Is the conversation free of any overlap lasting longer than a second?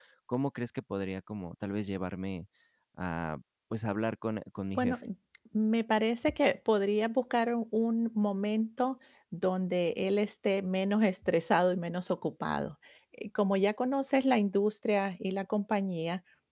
Yes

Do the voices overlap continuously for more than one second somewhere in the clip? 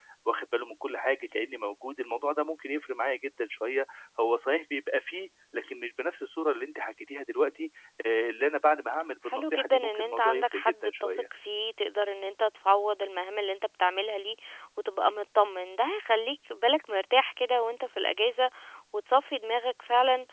Yes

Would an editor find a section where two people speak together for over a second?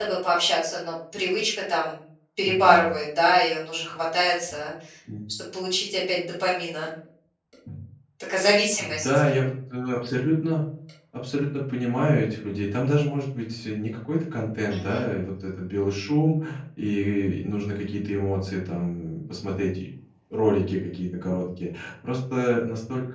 No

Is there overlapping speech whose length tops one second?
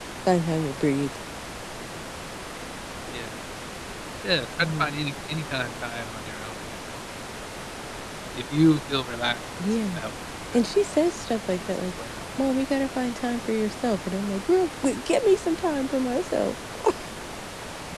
Yes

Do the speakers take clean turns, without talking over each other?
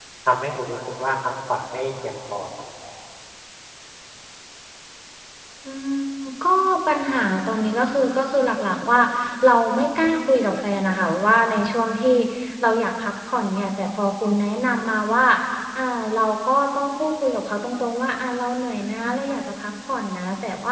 Yes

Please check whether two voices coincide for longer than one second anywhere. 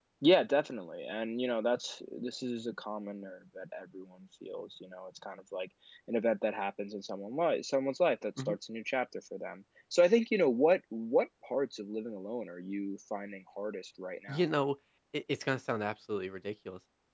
No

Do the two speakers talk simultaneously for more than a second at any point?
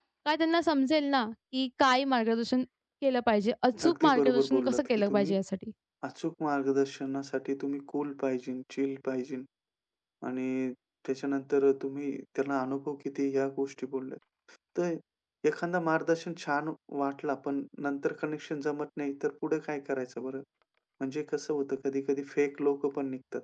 Yes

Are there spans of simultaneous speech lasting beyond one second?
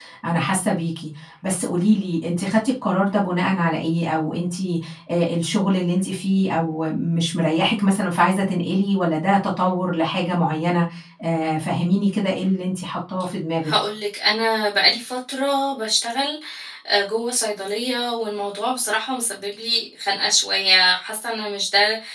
No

